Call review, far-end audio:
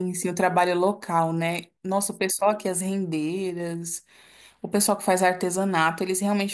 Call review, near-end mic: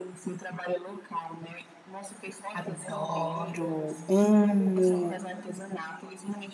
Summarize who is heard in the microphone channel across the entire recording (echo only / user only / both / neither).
both